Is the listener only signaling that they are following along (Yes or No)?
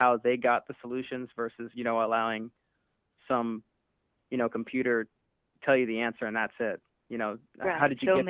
No